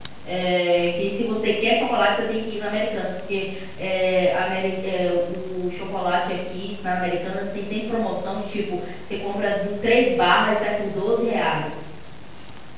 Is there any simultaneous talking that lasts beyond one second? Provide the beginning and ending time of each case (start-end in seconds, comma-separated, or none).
none